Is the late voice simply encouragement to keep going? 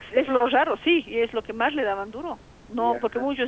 Yes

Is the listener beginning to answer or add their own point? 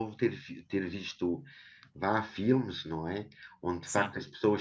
No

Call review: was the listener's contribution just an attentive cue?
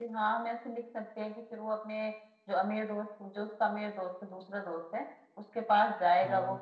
Yes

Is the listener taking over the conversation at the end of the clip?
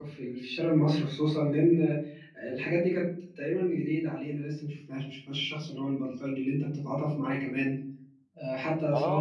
Yes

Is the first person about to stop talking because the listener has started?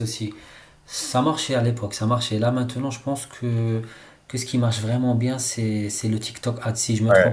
Yes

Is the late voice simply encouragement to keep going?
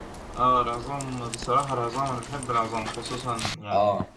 Yes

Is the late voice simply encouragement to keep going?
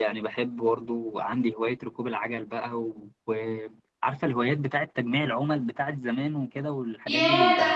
No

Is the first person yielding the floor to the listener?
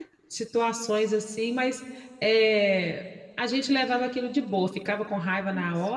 No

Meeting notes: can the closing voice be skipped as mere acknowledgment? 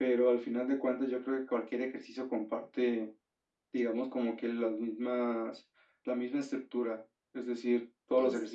Yes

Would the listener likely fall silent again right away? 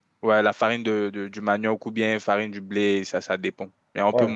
No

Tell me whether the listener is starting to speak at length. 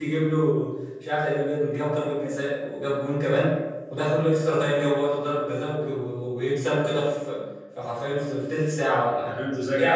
Yes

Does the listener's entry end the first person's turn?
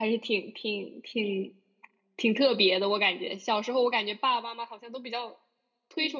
No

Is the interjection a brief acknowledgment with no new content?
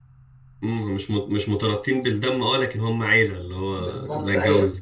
No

